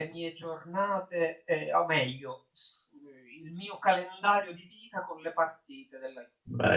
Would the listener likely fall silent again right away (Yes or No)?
No